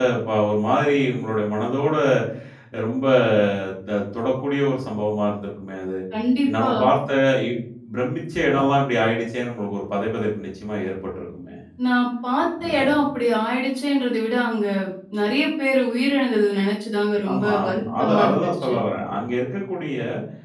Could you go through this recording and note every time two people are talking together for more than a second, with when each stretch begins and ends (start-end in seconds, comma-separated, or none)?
17.3-18.7